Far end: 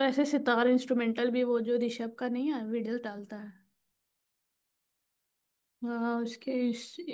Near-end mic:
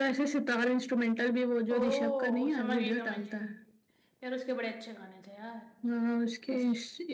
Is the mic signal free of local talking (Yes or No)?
No